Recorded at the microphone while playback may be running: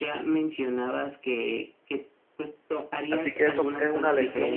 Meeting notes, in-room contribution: present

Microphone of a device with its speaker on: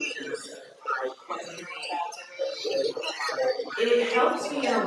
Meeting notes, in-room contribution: present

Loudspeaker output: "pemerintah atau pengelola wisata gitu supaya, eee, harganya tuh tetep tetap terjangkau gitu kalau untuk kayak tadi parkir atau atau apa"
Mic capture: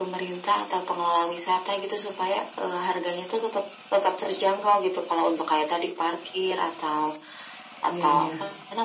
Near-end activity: present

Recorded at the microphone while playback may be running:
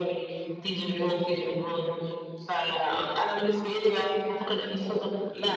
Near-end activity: none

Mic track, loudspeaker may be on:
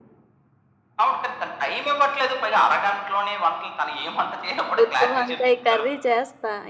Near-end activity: present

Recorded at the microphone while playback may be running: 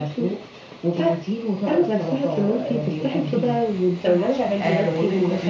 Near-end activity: present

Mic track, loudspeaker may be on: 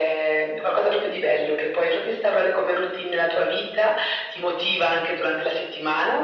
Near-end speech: none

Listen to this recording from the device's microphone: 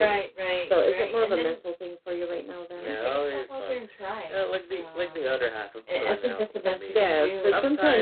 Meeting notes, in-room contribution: present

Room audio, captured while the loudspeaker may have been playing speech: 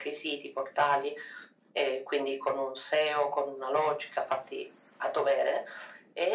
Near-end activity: none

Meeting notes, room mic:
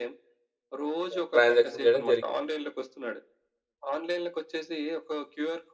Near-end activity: present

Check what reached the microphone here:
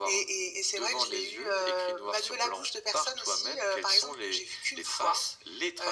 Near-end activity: none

